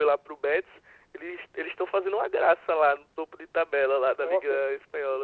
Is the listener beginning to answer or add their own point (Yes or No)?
Yes